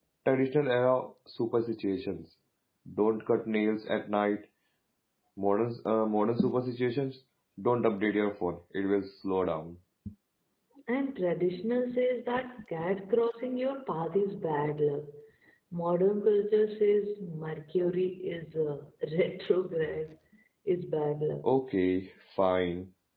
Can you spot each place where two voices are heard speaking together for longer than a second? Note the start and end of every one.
none

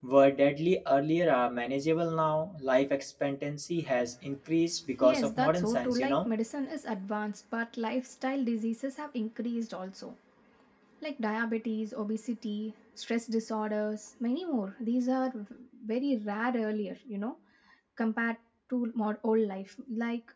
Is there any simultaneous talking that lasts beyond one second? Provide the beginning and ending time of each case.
5.0-6.3

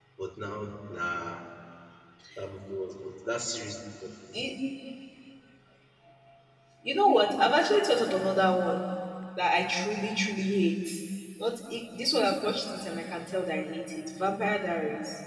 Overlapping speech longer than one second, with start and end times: none

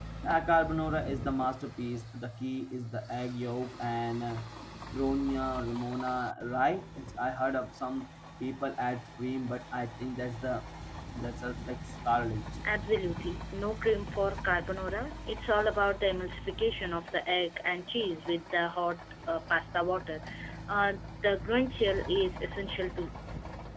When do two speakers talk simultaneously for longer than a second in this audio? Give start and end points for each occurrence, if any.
none

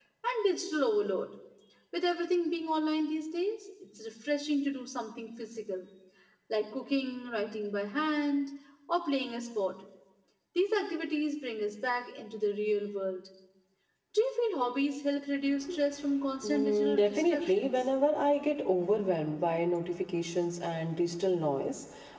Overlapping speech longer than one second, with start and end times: 16.4-17.7

